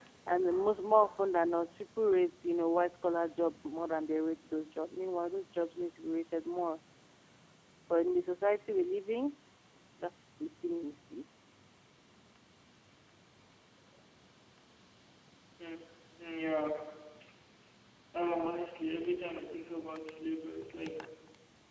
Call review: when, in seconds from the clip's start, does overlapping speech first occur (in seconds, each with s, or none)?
none